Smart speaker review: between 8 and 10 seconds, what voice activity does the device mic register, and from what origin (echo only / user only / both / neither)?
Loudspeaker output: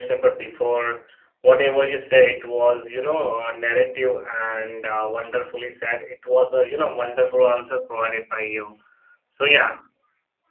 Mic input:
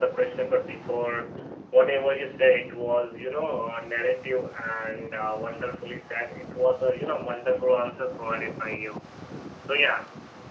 echo only